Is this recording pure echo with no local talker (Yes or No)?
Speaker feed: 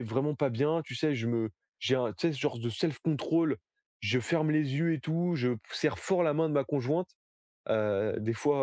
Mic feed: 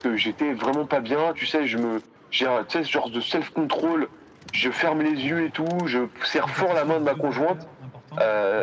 No